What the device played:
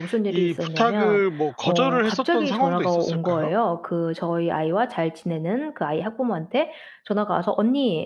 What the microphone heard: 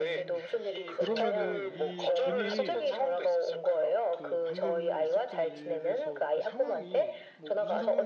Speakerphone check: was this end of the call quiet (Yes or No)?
No